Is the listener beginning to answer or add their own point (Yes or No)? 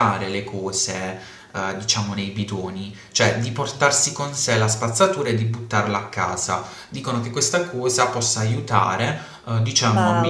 No